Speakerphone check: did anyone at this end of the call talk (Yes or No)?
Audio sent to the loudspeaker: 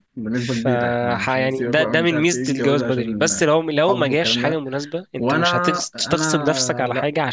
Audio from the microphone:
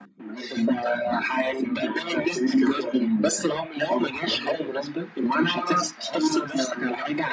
Yes